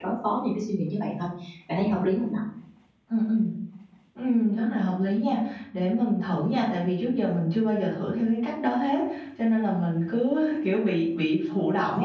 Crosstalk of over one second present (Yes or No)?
No